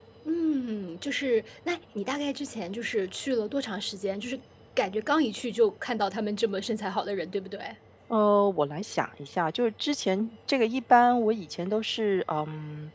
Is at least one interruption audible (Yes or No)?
No